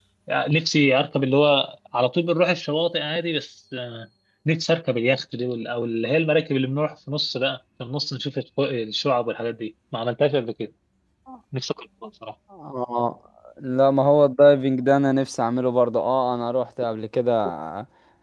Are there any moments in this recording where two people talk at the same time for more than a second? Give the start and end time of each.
none

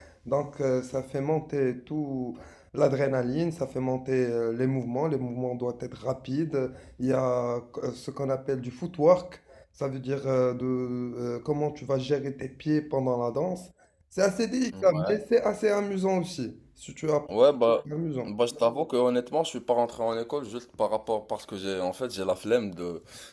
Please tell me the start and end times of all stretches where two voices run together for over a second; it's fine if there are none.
none

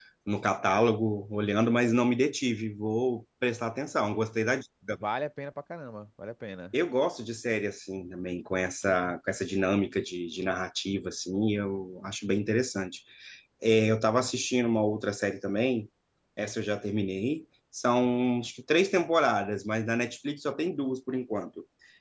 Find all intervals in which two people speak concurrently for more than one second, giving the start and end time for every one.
none

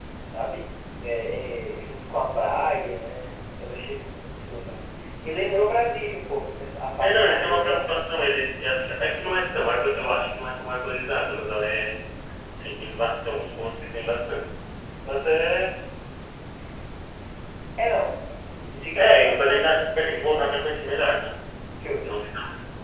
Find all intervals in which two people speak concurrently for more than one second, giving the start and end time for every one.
7.0-8.3, 19.0-20.4

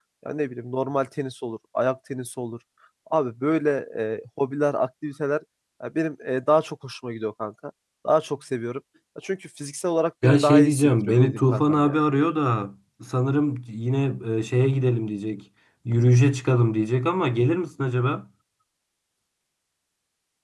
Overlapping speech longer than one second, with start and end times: 10.2-12.0

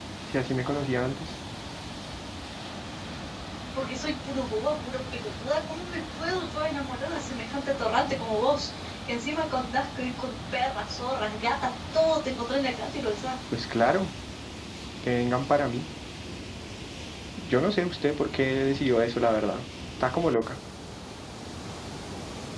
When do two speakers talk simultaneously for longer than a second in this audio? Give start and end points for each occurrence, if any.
none

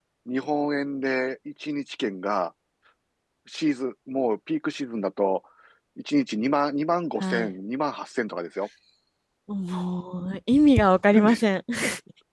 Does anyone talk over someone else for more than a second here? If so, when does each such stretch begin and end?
none

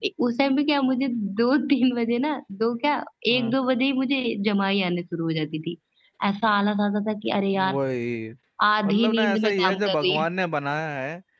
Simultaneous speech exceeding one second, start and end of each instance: 8.8-10.3

